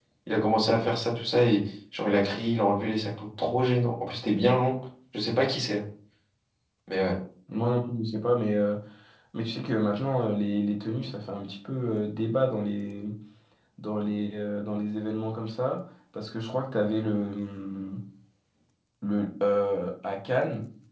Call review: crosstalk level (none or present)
none